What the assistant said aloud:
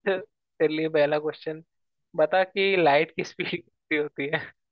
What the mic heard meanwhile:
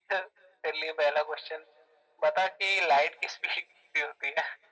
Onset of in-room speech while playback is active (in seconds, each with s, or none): none